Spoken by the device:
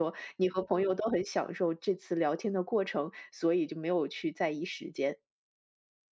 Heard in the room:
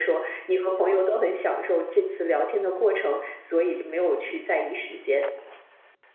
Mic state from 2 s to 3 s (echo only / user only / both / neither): echo only